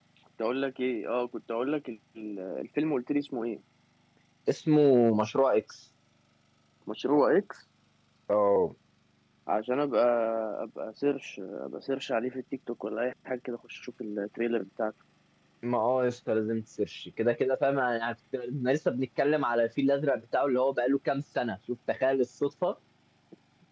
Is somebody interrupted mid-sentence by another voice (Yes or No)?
No